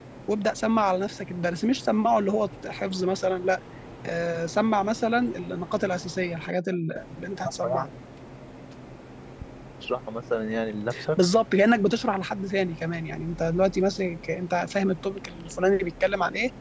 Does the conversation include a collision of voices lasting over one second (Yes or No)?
No